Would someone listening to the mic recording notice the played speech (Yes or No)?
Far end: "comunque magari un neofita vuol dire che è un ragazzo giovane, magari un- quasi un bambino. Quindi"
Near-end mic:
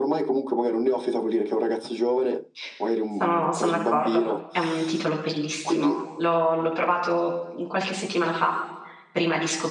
Yes